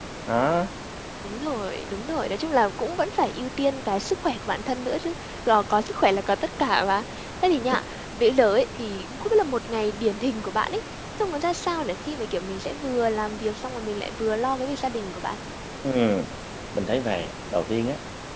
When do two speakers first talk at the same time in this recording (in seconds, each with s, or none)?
none